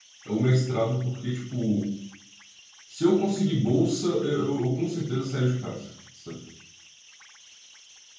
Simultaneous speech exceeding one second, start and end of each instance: none

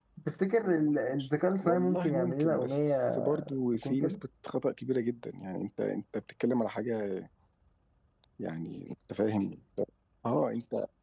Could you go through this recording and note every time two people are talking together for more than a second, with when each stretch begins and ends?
1.6-3.3

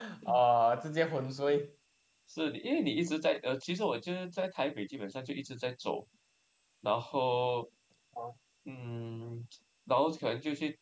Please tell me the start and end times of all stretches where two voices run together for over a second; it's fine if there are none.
none

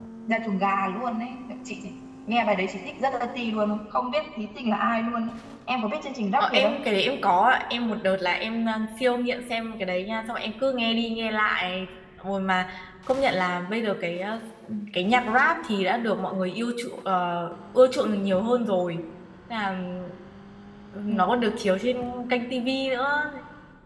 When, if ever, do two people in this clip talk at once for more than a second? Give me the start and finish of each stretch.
none

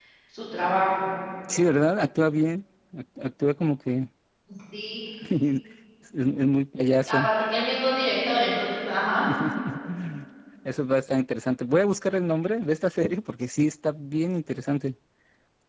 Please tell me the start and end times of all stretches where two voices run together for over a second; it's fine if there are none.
none

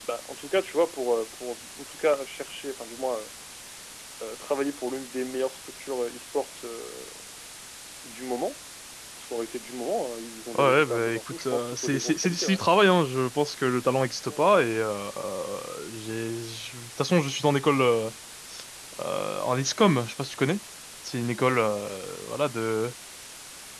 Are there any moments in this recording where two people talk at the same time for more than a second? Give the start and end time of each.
10.6-12.6

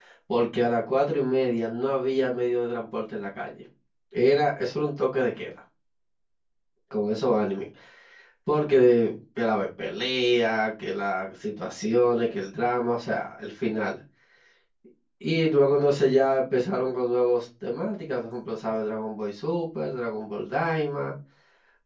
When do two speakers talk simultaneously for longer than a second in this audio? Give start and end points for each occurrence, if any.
none

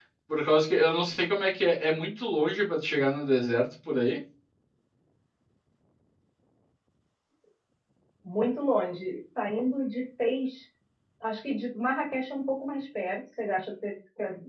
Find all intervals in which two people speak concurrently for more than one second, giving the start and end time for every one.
none

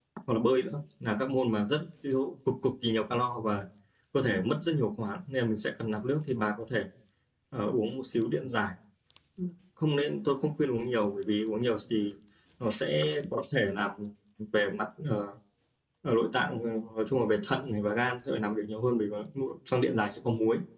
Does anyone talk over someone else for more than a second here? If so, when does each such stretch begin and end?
none

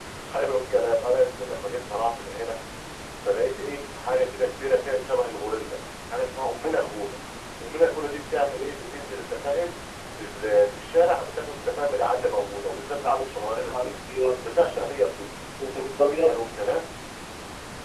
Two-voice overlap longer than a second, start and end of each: none

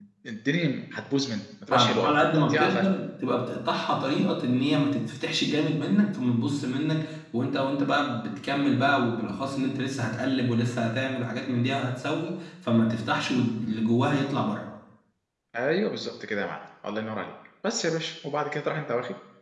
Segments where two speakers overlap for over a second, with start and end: 1.7-2.9

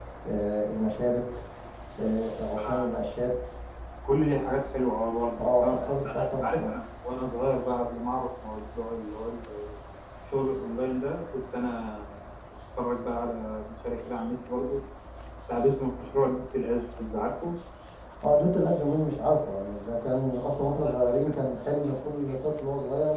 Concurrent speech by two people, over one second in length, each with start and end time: 5.4-6.7

